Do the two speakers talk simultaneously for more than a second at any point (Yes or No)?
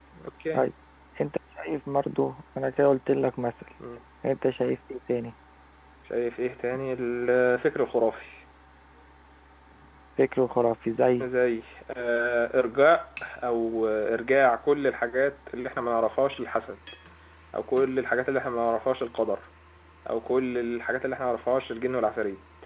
No